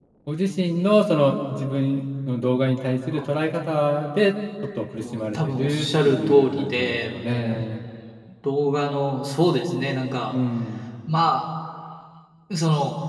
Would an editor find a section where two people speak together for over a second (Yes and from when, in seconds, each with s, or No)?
Yes, from 5.0 s